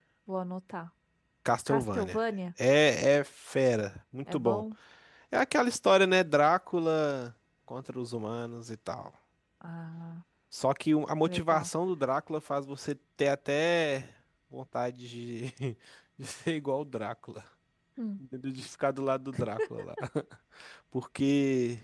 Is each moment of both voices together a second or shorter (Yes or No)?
Yes